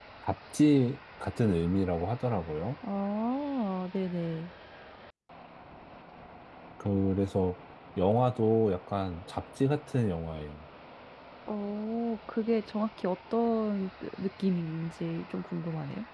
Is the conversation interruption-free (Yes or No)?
Yes